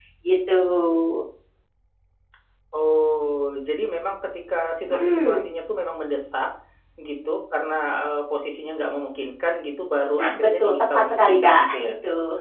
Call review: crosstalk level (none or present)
present